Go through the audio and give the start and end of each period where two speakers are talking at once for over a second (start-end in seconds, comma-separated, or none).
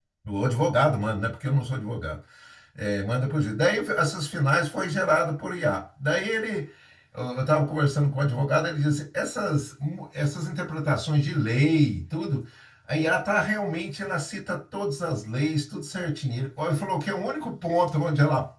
none